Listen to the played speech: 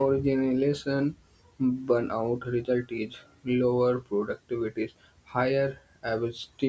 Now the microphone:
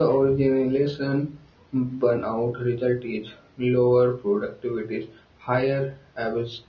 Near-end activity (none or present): none